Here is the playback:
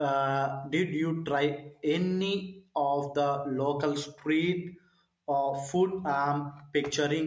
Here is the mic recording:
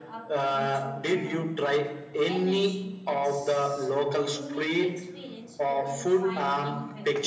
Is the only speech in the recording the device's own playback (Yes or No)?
No